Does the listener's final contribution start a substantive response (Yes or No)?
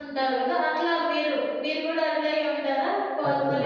Yes